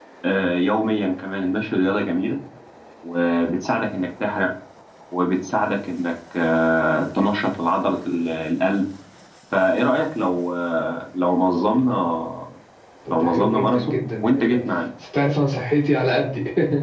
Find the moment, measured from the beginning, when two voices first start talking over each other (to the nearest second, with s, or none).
13 s